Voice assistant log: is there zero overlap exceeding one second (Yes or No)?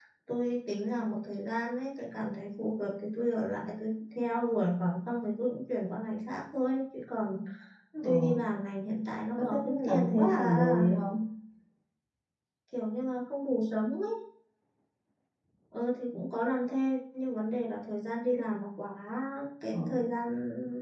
No